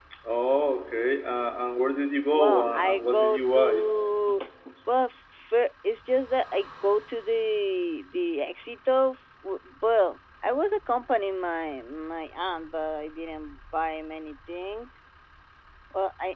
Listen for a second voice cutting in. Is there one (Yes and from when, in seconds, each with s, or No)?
Yes, from 2.3 s